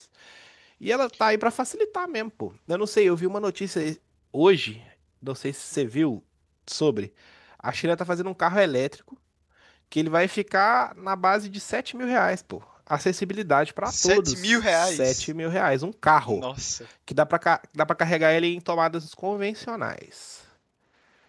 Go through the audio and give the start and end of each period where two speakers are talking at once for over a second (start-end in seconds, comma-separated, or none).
13.8-15.3